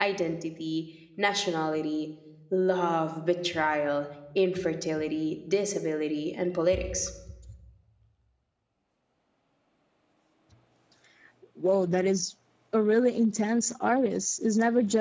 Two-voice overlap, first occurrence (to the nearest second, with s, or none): none